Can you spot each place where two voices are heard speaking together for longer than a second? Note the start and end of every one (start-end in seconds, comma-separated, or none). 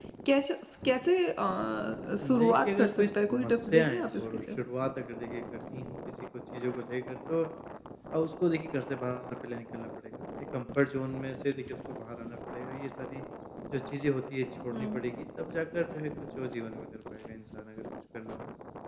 2.4-4.4